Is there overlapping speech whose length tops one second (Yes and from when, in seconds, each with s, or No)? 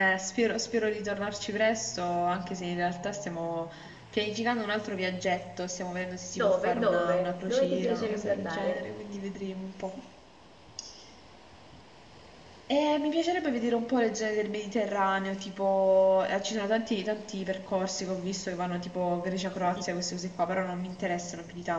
Yes, from 6.3 s